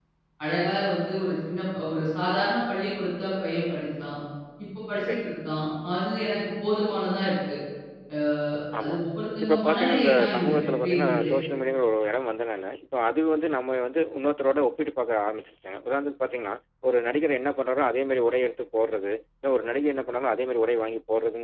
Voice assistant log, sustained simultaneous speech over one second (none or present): present